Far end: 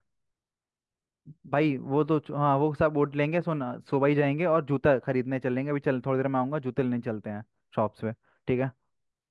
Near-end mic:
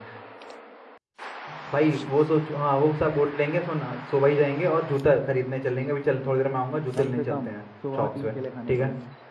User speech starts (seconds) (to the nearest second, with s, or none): 7 s